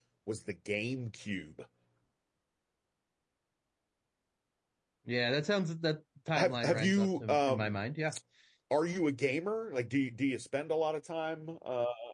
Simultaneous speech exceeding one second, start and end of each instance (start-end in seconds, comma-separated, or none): 6.4-7.8